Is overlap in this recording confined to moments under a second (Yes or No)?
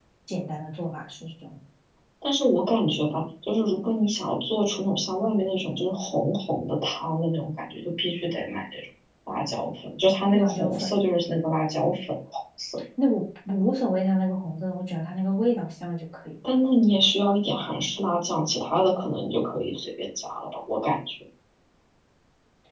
Yes